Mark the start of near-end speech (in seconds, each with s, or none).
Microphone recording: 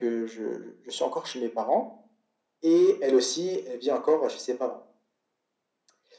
none